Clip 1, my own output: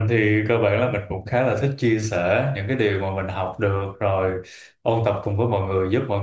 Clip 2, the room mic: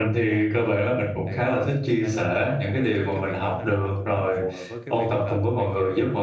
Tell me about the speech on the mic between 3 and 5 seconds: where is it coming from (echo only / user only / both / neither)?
both